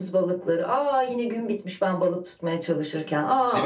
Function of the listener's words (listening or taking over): taking over